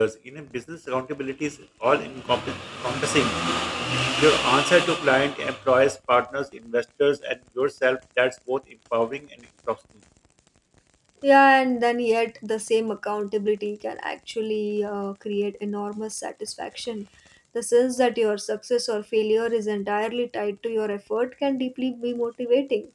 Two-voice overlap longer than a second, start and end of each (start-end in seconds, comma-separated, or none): none